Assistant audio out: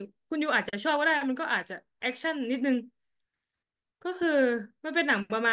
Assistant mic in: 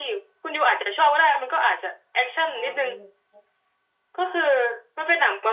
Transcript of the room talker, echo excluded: อ๋อ

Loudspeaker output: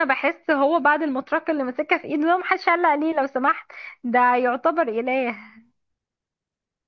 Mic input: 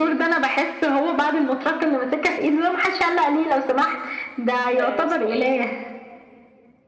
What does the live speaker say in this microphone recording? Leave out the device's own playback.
آه، اسمه ايه

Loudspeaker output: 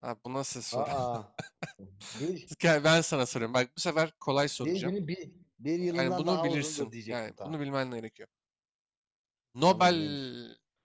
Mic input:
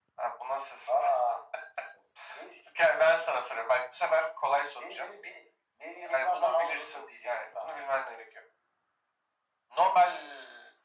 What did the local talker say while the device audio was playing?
none

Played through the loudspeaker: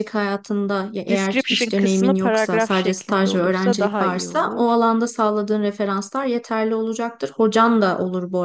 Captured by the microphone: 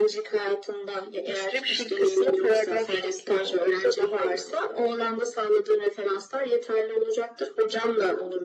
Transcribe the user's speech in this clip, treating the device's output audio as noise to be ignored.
none

